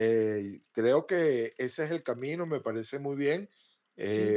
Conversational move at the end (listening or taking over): taking over